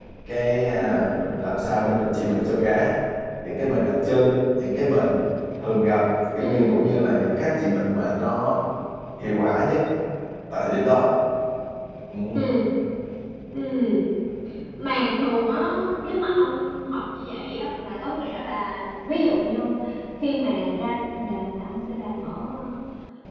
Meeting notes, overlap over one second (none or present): none